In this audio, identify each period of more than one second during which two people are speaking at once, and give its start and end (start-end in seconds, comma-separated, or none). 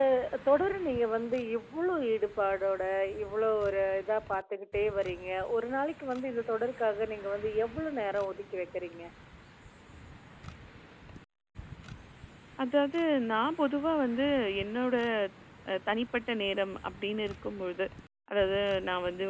none